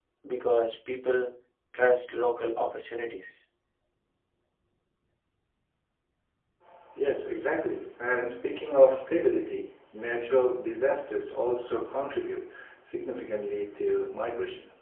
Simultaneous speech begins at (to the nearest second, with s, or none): none